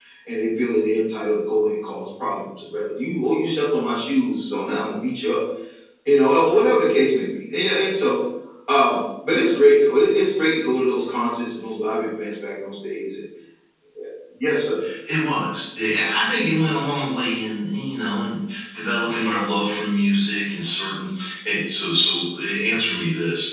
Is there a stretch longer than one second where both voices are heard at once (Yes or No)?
No